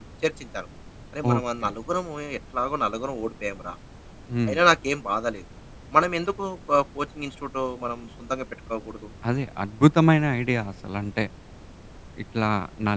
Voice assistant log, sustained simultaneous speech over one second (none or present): none